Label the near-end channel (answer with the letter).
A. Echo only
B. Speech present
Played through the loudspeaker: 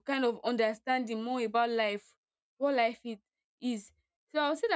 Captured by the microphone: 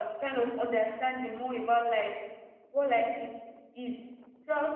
A